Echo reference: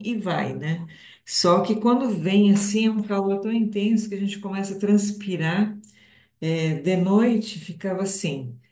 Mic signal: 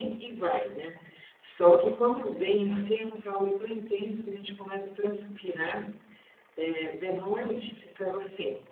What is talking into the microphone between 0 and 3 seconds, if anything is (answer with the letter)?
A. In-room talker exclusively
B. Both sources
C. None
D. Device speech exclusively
D